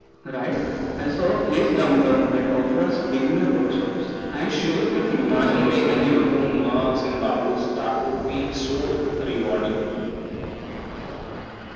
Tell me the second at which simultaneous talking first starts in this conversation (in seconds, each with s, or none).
4.3 s